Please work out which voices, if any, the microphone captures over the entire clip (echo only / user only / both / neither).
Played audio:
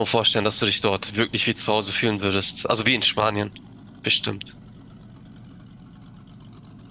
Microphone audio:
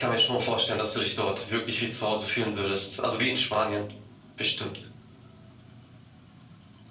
echo only